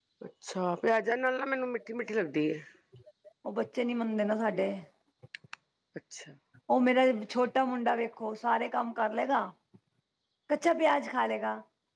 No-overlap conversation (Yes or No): Yes